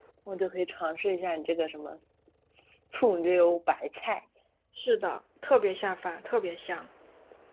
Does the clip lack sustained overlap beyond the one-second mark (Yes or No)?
Yes